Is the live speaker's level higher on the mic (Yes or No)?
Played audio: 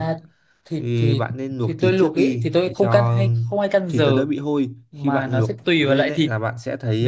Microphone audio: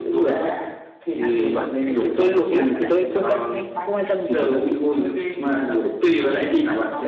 No